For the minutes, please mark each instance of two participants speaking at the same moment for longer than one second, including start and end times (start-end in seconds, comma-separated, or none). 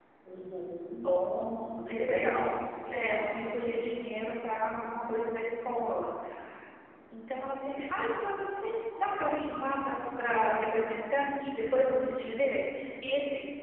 1.3-2.5